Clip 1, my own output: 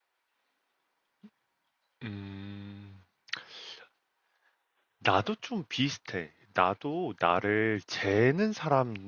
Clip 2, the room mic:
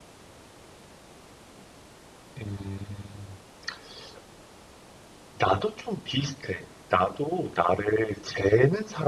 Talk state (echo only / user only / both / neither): echo only